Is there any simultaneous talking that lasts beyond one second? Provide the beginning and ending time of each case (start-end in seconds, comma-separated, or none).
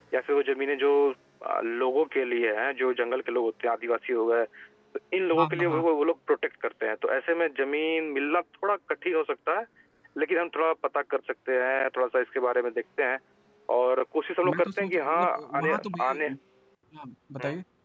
14.5-16.3